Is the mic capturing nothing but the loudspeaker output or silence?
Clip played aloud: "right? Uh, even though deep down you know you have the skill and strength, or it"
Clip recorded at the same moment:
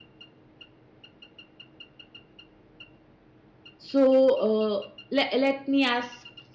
No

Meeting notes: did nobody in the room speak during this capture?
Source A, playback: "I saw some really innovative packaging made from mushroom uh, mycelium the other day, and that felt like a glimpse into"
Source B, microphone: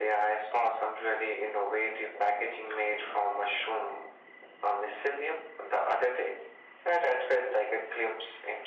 Yes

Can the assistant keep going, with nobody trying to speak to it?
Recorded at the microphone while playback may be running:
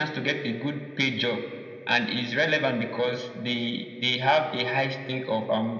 Yes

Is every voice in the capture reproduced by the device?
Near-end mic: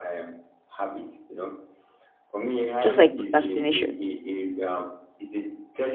No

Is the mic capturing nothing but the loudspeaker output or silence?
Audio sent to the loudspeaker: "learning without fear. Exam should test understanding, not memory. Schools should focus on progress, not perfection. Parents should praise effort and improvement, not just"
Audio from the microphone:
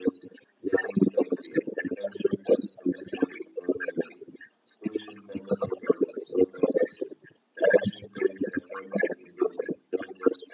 Yes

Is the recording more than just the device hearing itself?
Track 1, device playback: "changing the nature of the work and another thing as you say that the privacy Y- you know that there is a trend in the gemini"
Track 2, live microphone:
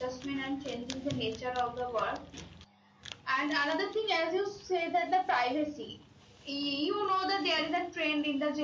No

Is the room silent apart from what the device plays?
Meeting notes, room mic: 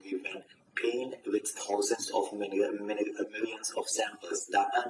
Yes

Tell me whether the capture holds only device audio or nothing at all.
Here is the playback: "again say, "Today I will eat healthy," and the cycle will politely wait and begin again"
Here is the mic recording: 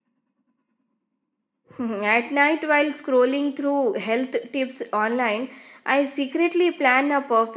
No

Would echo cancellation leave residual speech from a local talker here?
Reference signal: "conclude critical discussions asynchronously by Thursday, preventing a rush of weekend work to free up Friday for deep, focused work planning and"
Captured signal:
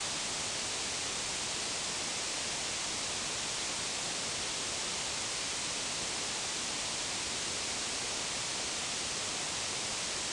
No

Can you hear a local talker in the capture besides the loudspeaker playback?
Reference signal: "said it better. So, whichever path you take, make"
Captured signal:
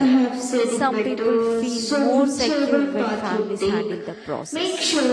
Yes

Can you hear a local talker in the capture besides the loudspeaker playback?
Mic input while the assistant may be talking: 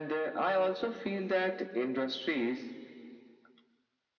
No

